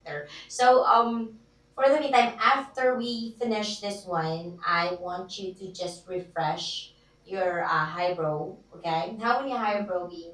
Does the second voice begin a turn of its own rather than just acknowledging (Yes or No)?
No